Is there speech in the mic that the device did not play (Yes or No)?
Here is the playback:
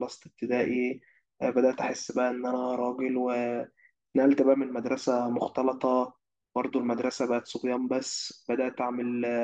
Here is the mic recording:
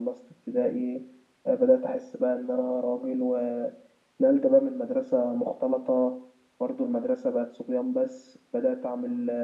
No